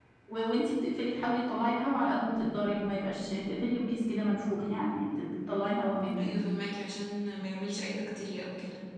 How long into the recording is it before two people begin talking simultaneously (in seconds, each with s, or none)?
none